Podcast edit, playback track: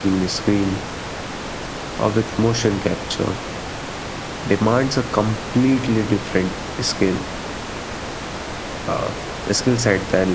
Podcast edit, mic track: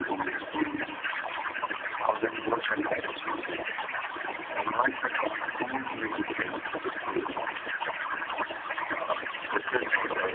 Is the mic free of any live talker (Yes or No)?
Yes